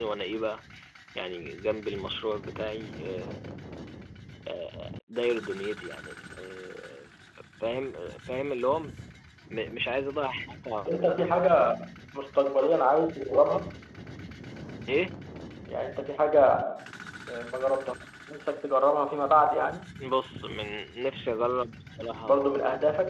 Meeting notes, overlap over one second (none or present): none